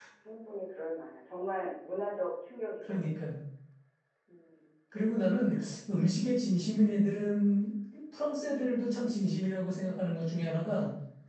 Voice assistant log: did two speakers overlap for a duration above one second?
No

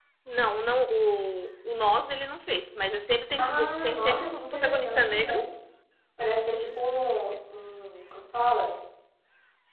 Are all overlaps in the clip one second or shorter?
No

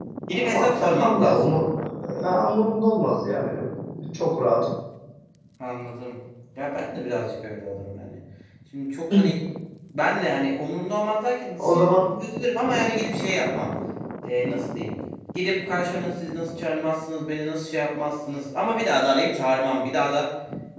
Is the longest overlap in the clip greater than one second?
Yes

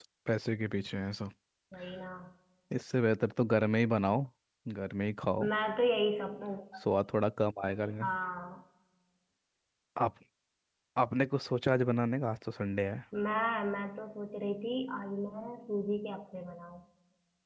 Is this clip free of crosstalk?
Yes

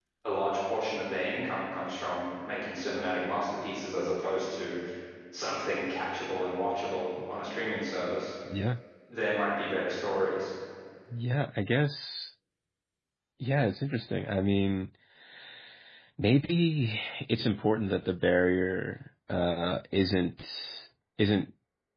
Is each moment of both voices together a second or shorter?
Yes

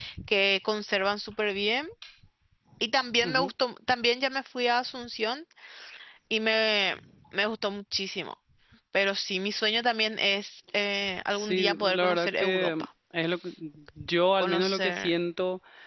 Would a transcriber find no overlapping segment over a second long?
No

